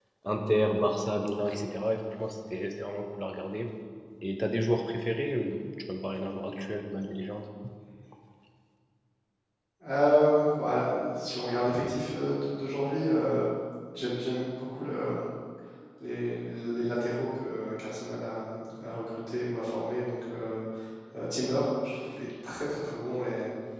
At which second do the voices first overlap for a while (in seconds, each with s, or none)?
none